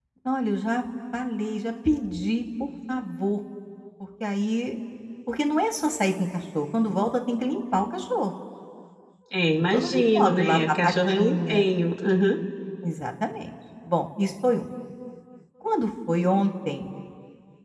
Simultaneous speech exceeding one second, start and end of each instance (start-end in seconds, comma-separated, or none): 9.5-11.6